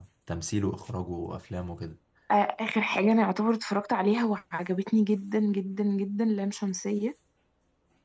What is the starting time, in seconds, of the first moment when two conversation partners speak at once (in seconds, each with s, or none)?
none